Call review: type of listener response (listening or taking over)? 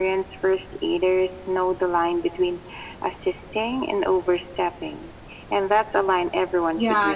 taking over